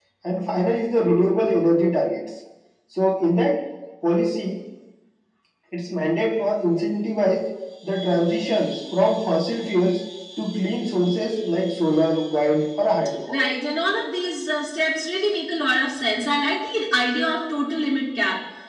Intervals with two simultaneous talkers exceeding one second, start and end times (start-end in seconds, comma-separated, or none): none